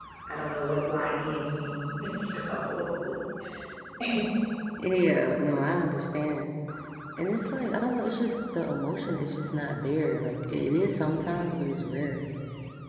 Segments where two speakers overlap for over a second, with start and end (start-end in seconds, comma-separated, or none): none